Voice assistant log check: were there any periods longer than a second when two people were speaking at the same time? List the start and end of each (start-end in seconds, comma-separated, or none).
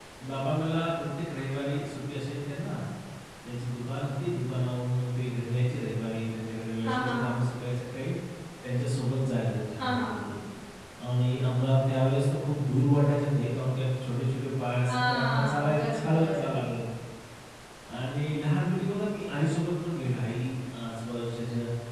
14.9-16.6